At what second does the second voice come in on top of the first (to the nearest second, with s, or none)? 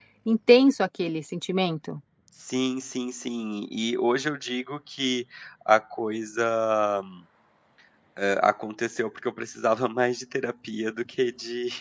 none